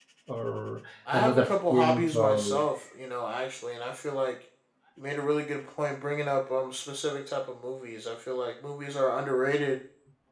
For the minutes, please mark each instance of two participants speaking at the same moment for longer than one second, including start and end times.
1.1-2.4

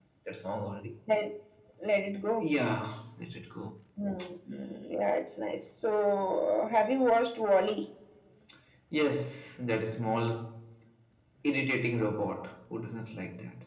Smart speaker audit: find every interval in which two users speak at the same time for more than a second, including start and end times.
none

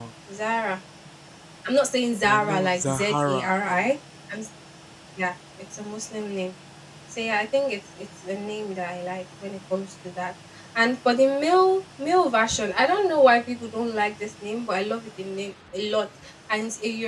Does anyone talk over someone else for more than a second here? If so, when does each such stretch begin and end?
2.2-3.9

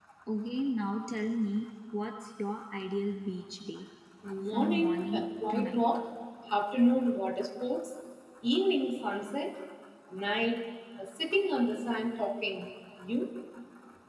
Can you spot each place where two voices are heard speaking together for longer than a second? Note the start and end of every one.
4.5-5.8

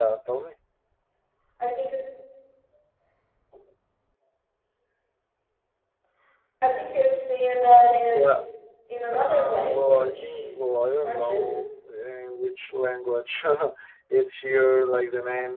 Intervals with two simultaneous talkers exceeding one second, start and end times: 9.1-10.4

